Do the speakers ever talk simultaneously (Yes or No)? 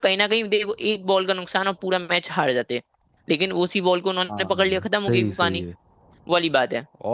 Yes